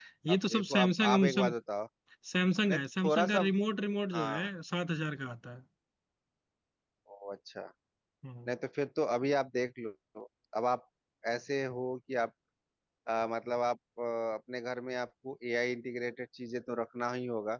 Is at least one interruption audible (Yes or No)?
Yes